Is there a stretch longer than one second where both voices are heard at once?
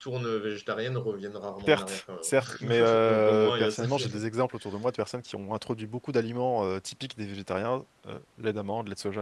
Yes, from 1.6 s

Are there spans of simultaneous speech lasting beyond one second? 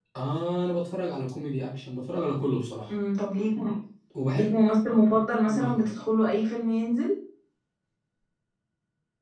No

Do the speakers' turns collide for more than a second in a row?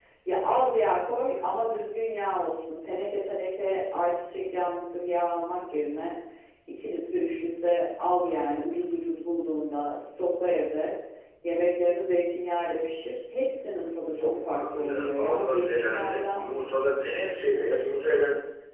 Yes, from 14.2 s

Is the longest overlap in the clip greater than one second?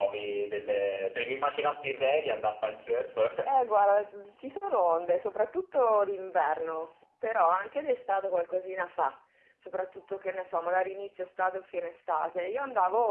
No

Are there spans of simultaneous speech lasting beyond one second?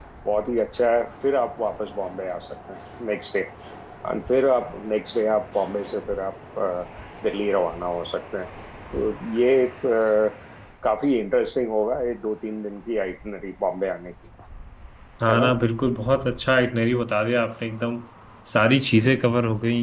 No

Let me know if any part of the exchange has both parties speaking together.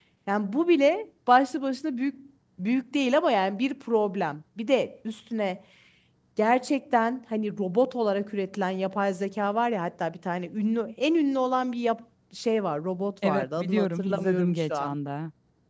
Yes, from 13.2 s

